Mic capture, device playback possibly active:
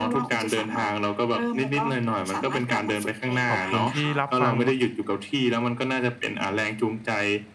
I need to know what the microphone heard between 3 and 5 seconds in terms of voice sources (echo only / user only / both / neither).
both